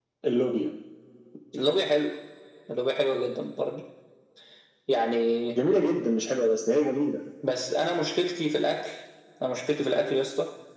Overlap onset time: none

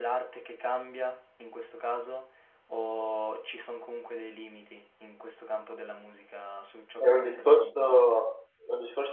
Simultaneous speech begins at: 7.0 s

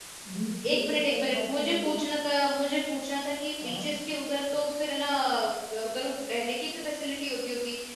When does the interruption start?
0.7 s

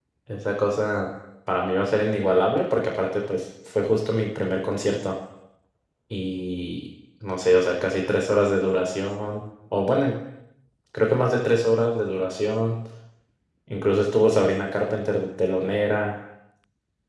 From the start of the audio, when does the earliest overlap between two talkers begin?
none

